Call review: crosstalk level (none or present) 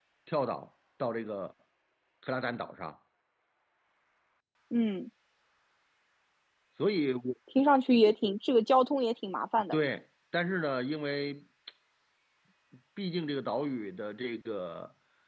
none